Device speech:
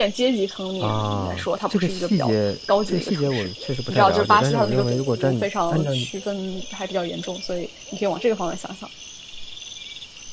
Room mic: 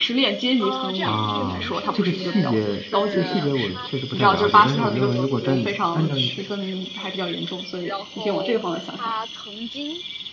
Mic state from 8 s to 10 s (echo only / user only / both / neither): both